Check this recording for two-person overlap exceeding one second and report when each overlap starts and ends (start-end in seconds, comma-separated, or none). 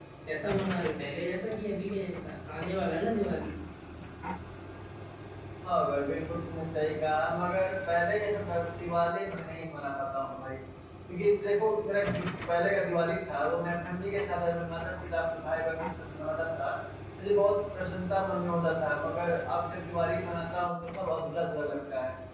none